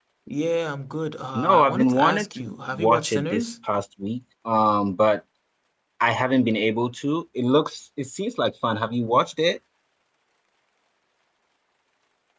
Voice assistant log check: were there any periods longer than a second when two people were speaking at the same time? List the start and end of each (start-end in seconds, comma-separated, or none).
1.4-3.4